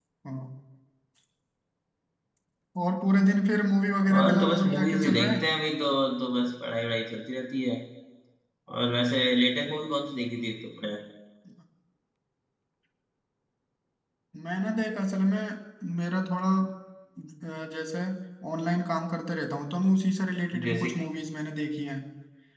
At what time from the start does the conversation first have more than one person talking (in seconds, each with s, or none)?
4.2 s